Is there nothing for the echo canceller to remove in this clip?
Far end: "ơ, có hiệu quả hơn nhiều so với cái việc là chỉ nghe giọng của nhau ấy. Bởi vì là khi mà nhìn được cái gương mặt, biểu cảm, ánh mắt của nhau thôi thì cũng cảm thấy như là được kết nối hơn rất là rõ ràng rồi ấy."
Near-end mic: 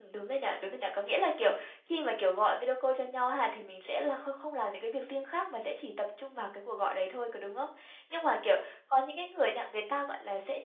Yes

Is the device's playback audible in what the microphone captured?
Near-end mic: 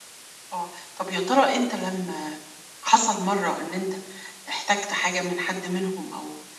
No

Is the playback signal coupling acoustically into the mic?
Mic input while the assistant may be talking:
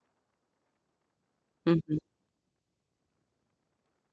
No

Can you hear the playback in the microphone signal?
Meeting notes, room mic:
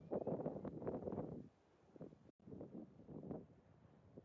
No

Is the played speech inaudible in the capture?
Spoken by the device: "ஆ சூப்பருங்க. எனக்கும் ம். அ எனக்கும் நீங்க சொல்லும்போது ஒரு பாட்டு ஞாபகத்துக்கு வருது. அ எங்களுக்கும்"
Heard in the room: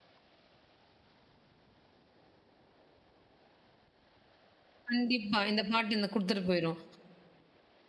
Yes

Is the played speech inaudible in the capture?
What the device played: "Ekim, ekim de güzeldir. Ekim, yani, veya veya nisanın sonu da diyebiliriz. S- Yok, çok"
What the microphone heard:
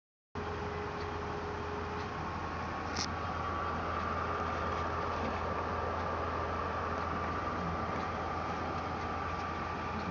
Yes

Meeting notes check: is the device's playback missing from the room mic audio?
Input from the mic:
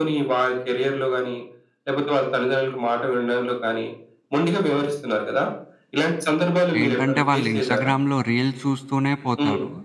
No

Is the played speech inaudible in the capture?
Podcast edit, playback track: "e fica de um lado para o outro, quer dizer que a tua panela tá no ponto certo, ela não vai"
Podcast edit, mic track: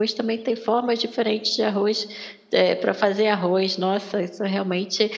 Yes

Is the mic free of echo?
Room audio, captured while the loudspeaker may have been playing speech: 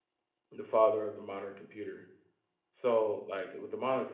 Yes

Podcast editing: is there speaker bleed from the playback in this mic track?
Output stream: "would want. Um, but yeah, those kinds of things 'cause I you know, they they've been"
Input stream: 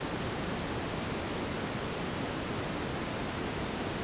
No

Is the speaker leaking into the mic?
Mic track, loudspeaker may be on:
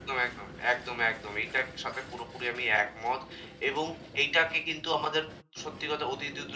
No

